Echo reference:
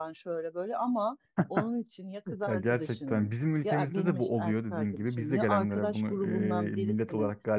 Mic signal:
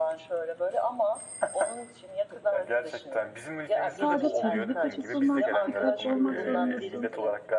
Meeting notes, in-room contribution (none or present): present